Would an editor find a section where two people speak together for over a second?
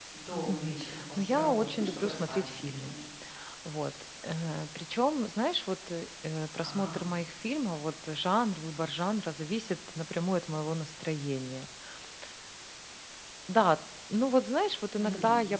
Yes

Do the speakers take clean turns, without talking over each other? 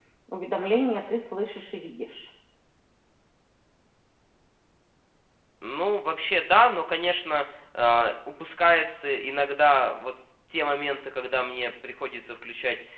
Yes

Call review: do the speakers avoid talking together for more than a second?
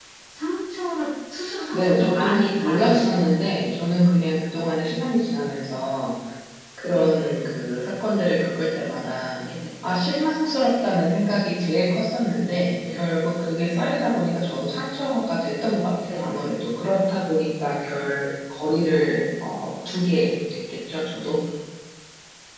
No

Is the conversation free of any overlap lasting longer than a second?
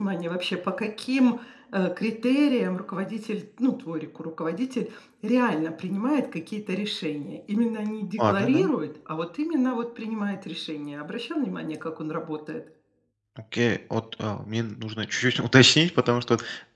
Yes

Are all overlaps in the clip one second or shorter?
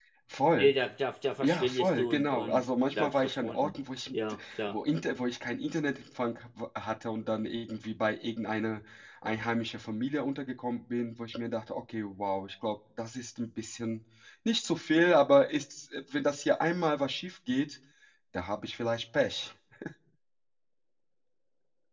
No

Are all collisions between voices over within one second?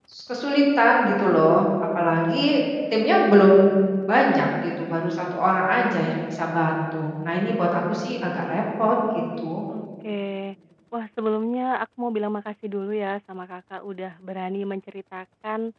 Yes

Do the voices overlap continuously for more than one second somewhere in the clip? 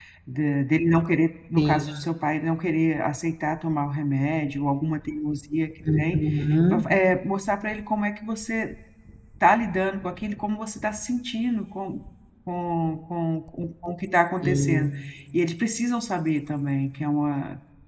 No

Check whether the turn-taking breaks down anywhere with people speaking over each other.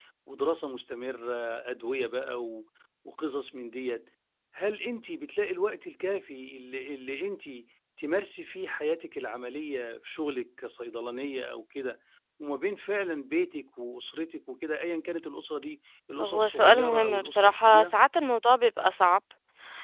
Yes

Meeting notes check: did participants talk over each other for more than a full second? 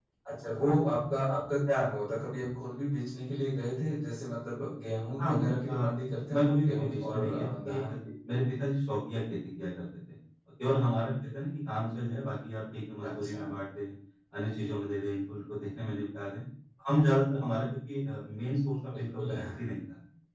Yes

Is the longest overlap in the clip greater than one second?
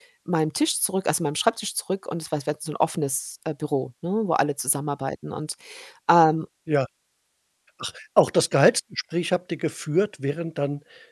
No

